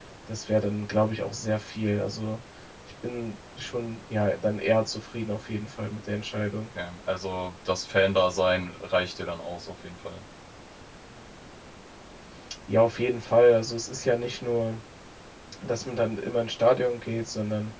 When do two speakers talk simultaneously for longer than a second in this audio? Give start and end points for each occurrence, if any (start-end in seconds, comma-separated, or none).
none